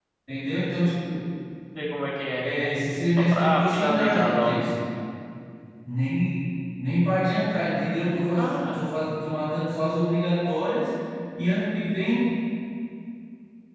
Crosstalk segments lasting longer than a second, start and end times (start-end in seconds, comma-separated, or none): 3.3-4.6